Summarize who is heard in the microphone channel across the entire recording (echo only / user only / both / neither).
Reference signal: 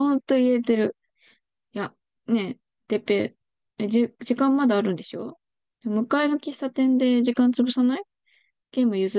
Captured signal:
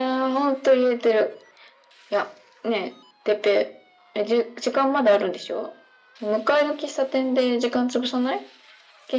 echo only